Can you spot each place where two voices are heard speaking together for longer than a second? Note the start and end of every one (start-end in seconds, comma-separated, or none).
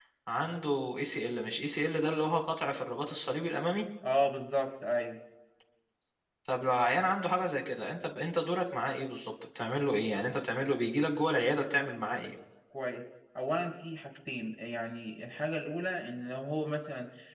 none